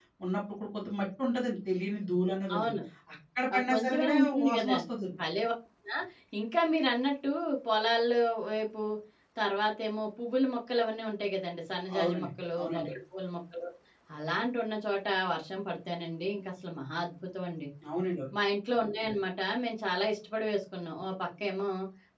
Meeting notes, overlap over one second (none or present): present